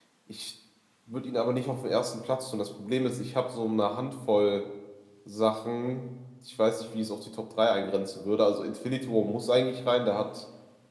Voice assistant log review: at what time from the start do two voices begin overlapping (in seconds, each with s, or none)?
none